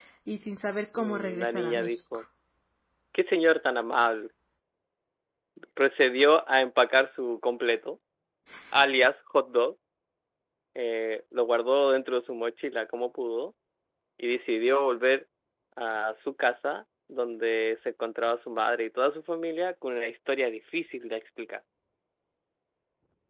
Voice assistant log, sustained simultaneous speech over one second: present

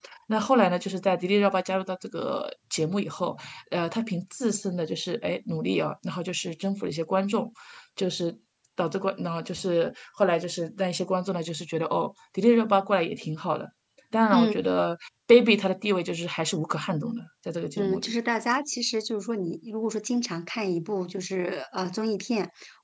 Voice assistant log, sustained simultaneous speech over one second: none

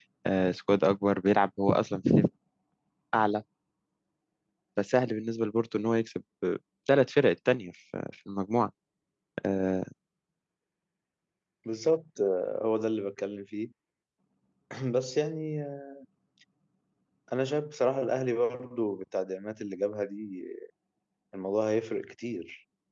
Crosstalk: none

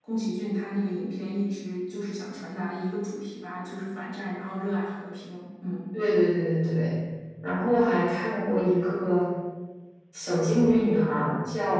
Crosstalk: none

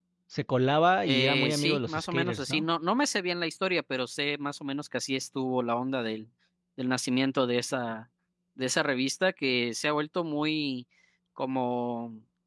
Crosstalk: present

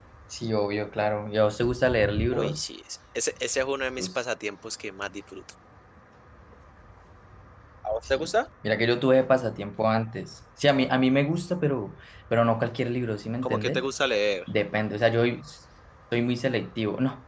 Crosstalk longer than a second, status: none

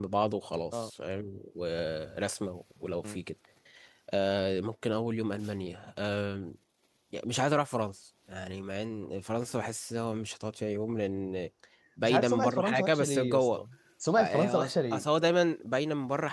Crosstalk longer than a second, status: present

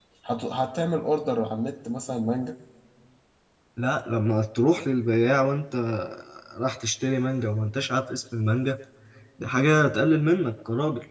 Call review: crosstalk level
none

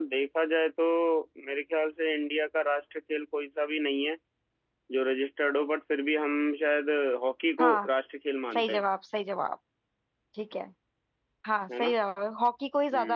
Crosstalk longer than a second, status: none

